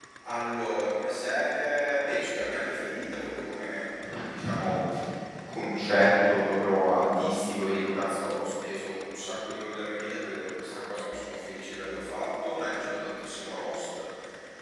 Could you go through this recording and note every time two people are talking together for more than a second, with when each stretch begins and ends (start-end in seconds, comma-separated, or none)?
none